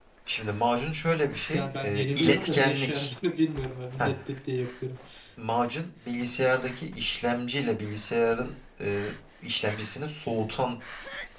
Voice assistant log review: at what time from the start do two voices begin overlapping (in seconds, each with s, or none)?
1.5 s